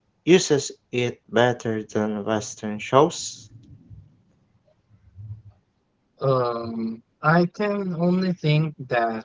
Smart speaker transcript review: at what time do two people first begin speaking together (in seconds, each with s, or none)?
none